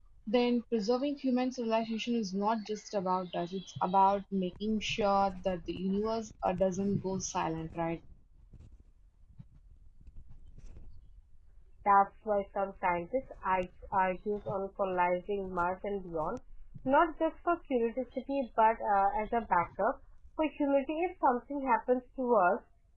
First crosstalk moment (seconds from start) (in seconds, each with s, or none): none